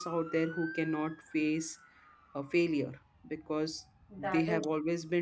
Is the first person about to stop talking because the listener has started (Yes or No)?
No